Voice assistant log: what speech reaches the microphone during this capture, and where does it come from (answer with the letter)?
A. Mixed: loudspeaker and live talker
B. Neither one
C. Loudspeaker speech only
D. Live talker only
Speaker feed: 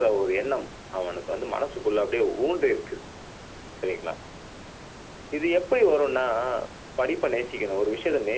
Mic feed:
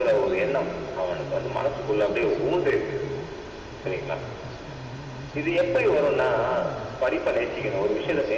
A